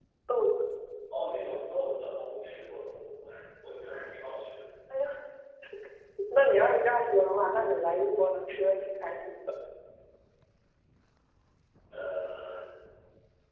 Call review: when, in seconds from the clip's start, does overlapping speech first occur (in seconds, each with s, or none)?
none